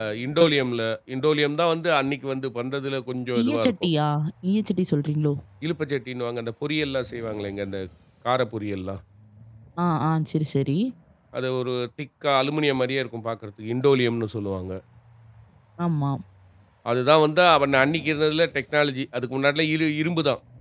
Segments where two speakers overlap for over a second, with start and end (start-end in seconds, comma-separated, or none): none